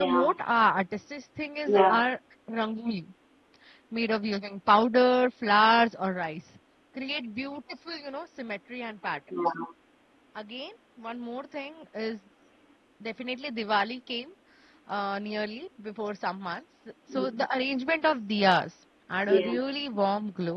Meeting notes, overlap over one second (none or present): none